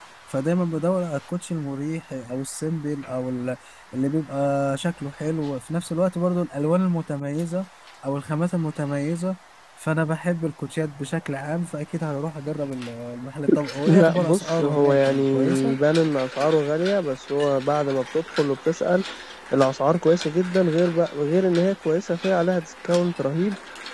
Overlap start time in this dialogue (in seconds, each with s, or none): 13.8 s